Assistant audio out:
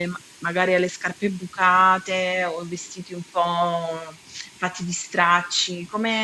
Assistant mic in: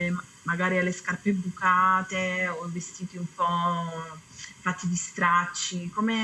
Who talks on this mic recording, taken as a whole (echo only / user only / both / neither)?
echo only